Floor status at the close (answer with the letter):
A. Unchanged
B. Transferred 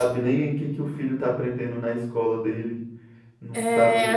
B